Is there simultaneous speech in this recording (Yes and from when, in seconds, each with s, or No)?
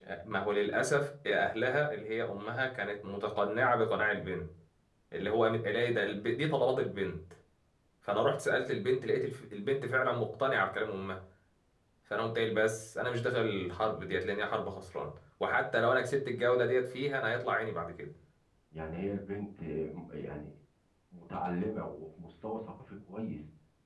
No